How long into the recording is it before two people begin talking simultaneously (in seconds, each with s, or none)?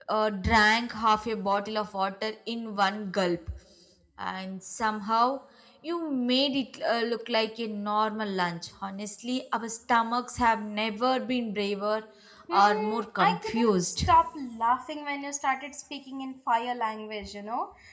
12.5 s